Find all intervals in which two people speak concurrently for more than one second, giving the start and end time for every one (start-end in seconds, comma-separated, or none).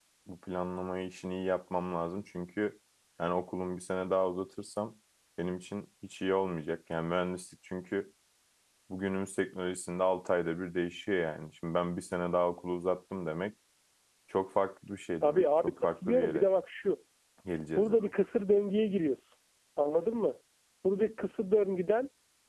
15.2-16.4